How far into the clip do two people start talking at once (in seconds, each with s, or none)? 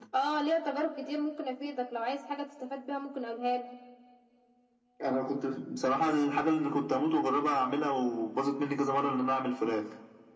none